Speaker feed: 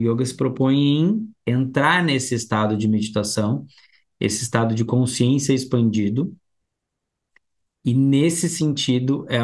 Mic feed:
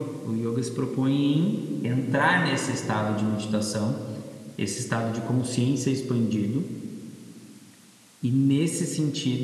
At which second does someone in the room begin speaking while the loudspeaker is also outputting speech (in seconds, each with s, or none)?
none